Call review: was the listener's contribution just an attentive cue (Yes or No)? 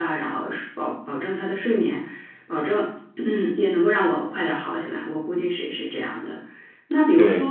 Yes